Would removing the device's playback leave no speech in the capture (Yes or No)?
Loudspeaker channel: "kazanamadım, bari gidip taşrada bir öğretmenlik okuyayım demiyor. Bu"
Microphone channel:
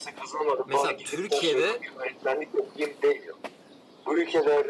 No